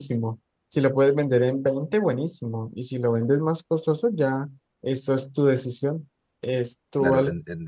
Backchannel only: No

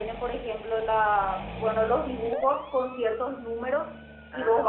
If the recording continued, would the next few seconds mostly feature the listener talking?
No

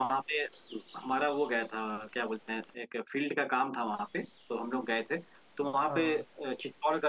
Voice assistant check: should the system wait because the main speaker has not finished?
Yes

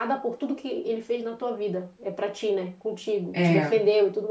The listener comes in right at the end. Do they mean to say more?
No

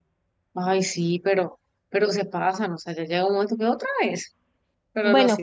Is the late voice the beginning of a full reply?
Yes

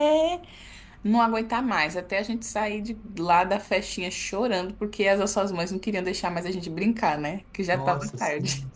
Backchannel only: No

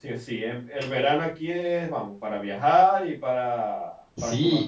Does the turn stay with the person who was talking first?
No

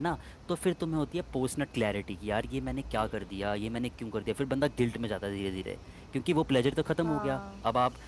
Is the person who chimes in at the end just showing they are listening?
Yes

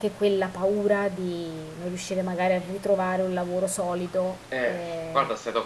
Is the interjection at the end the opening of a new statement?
Yes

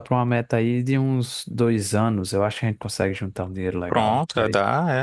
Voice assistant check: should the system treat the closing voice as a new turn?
Yes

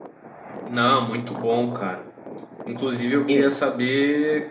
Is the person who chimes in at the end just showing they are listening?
Yes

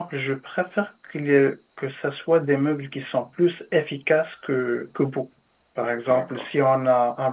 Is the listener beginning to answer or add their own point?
No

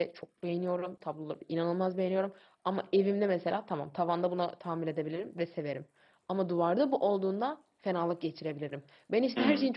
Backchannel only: Yes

